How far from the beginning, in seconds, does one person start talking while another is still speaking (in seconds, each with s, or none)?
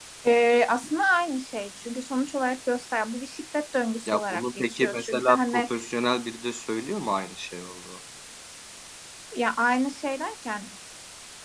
4.1 s